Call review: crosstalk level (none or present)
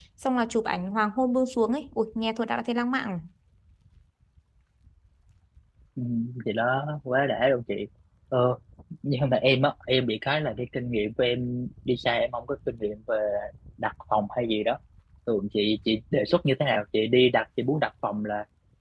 none